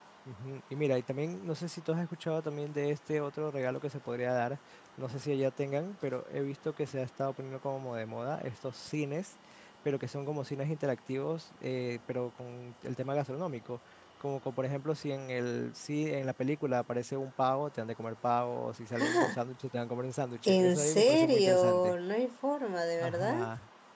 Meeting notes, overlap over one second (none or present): present